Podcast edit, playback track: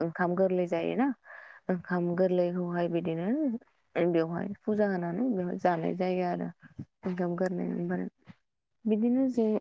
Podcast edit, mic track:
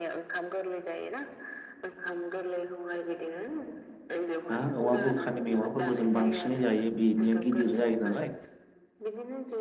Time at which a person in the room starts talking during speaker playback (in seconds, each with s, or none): 4.5 s